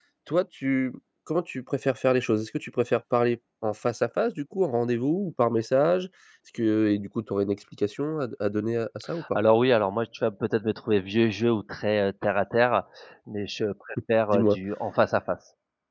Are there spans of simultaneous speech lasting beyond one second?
No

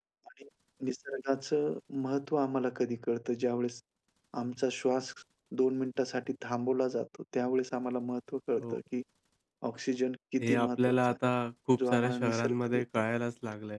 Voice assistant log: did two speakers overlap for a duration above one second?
Yes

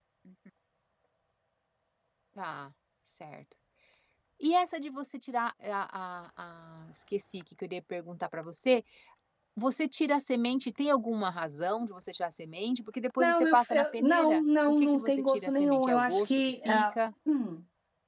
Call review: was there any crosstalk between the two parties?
Yes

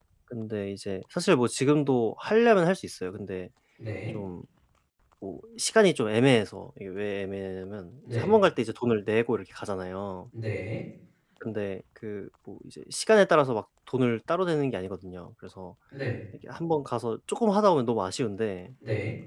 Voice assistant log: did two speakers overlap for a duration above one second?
No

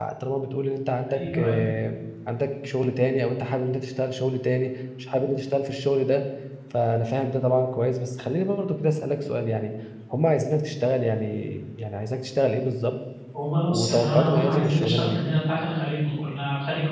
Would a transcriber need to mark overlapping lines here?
Yes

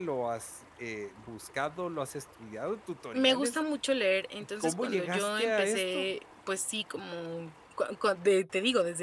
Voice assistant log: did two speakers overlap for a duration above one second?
Yes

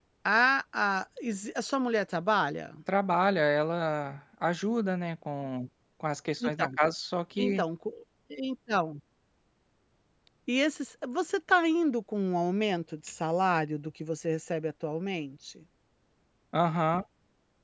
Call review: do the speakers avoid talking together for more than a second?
Yes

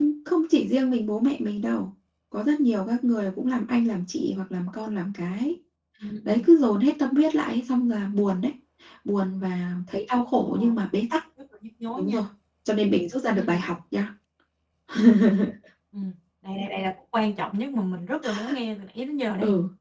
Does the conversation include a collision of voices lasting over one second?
No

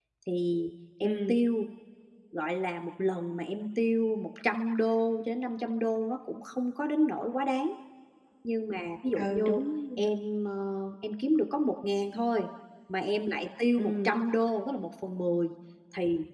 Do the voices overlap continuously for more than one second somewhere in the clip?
No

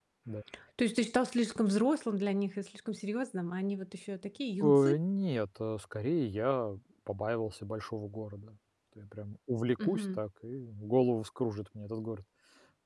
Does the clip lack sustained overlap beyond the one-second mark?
Yes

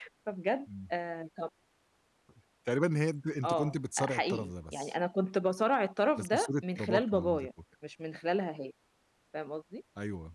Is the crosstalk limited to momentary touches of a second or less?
No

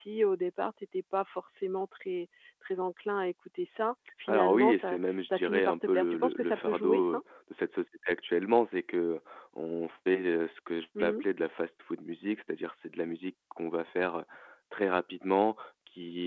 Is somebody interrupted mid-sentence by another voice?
Yes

